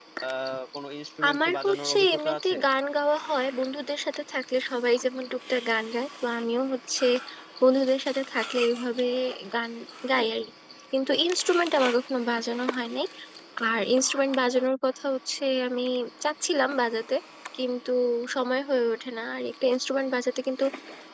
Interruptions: present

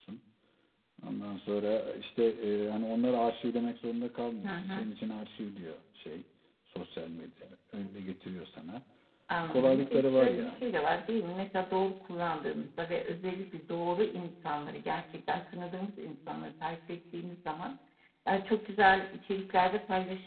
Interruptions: present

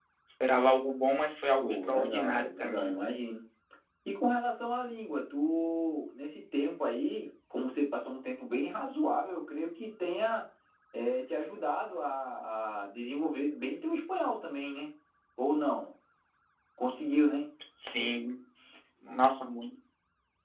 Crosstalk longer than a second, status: present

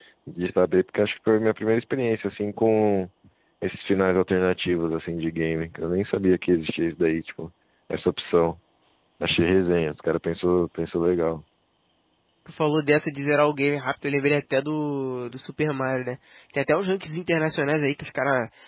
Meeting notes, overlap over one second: none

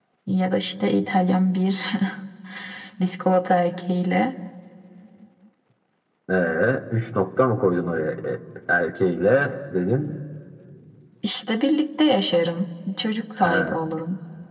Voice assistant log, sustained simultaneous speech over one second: none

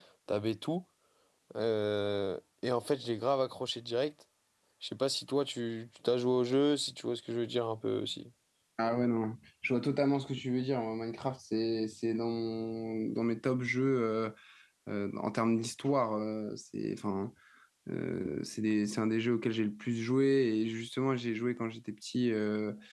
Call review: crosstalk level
none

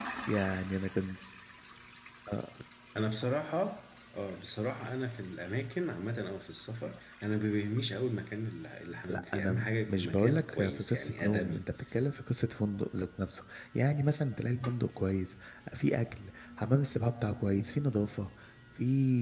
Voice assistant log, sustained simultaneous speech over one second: present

